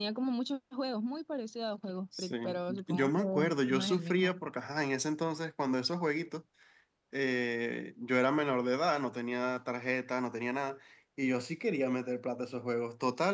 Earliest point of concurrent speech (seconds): 2.1 s

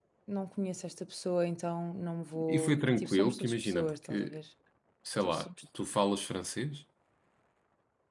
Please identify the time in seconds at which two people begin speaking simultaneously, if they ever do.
2.5 s

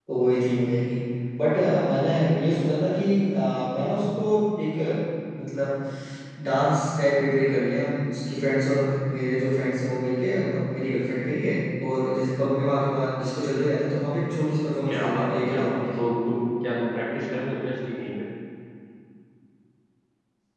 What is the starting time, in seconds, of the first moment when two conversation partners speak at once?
14.9 s

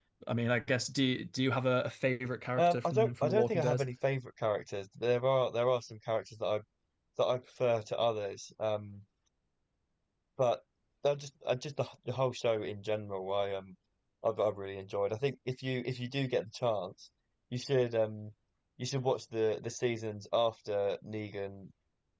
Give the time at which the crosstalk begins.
2.6 s

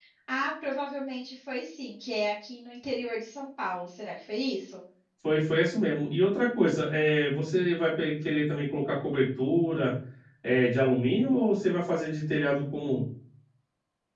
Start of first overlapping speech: none

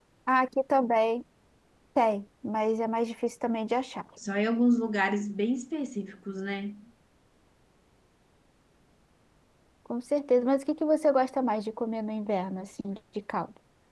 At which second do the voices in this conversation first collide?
none

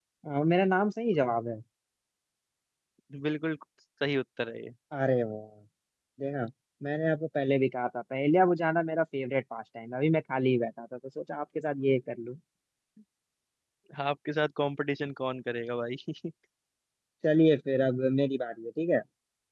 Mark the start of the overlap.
none

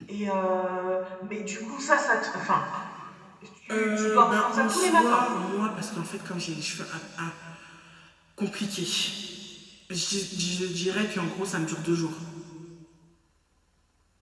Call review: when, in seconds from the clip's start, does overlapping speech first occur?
3.7 s

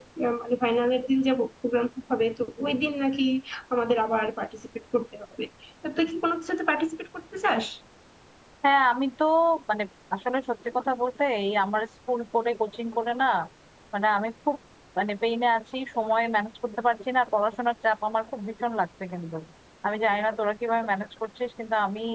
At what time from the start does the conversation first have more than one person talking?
none

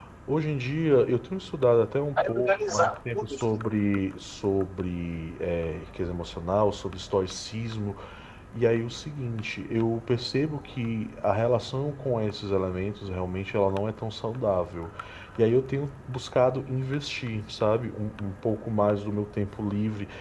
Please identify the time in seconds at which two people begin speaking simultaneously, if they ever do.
2.2 s

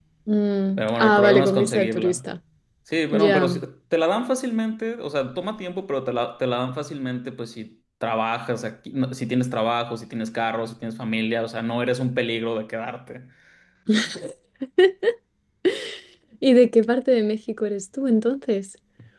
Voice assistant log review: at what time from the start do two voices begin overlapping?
0.8 s

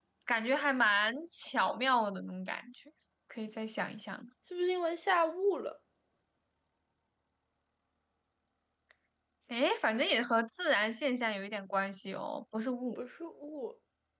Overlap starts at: none

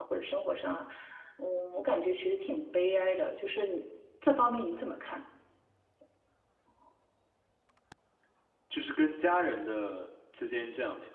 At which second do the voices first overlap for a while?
none

